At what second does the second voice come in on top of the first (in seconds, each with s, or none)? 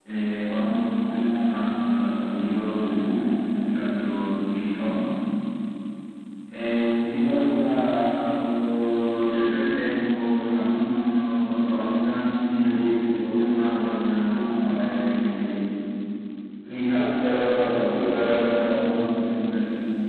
16.9 s